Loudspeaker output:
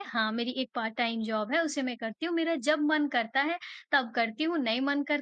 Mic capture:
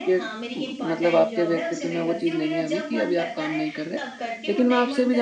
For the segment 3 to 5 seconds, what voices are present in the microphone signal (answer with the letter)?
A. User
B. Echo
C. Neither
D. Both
D